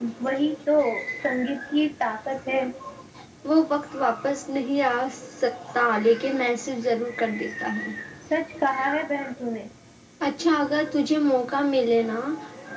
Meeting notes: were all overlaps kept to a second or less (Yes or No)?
Yes